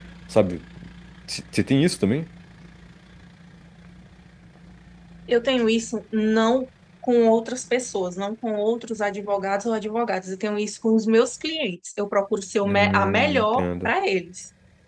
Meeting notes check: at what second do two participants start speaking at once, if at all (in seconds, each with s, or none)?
12.7 s